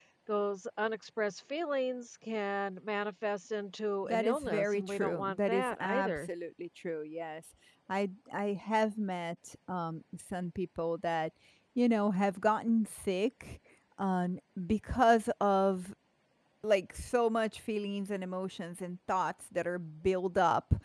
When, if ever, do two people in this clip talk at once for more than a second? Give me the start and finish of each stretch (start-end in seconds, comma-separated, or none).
4.0-6.3